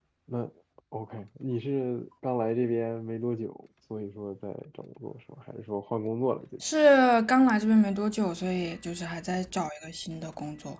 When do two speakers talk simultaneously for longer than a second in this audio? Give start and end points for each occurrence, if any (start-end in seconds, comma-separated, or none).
none